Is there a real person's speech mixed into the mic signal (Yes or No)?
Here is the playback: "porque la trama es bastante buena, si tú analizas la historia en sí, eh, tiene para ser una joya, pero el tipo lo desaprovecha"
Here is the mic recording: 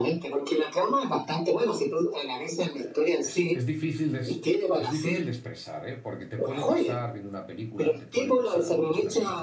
Yes